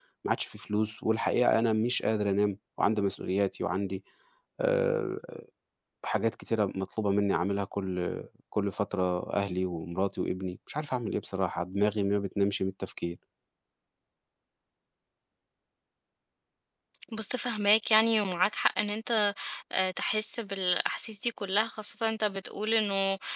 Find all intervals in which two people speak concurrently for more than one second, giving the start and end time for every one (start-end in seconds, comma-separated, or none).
none